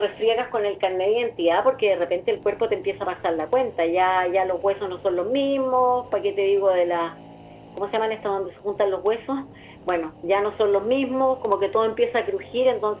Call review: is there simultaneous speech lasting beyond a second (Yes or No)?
No